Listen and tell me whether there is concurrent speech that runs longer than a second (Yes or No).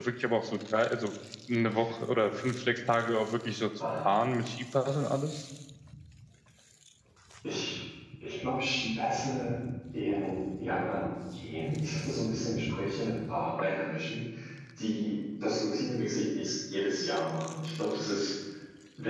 No